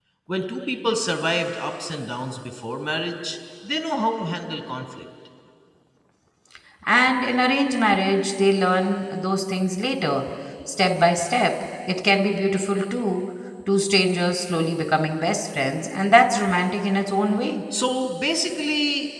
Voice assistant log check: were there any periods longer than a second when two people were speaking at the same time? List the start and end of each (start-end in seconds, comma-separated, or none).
none